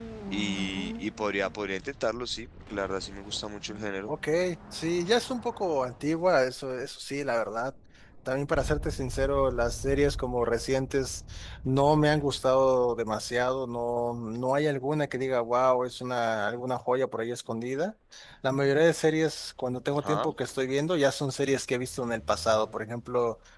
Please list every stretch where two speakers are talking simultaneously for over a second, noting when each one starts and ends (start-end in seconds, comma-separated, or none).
none